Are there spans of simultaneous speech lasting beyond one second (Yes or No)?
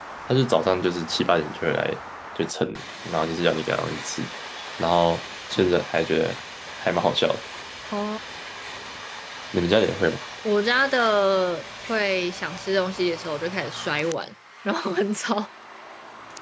No